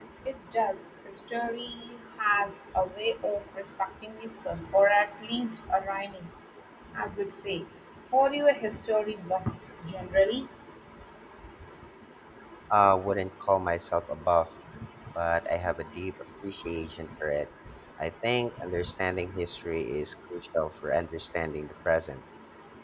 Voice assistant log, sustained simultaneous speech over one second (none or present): none